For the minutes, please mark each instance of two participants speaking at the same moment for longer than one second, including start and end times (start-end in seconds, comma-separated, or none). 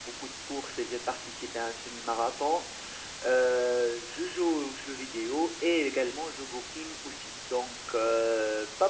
none